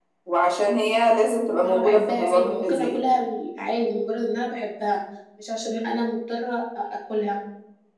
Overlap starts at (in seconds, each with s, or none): 1.6 s